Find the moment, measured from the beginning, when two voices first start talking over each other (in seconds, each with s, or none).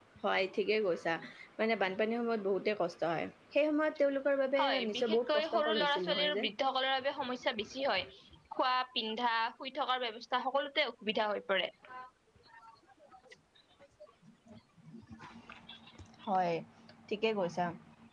4.6 s